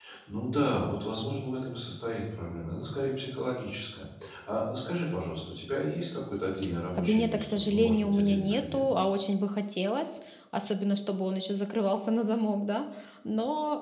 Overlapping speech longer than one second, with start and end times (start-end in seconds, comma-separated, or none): 6.9-8.8